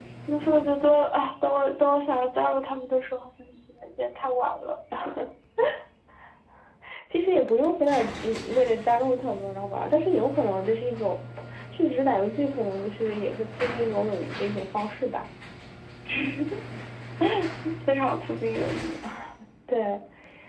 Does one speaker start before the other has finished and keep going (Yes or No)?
No